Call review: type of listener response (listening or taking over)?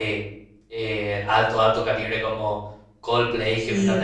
listening